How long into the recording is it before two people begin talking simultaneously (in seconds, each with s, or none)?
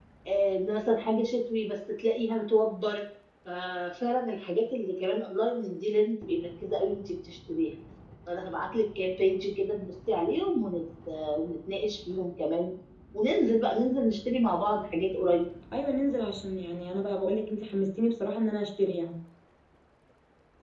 none